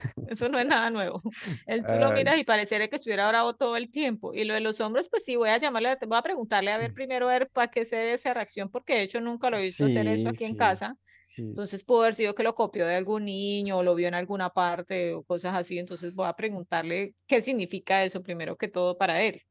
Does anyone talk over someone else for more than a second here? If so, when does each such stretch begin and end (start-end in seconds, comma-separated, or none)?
9.6-10.8